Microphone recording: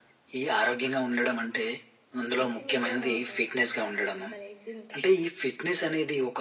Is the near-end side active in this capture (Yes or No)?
Yes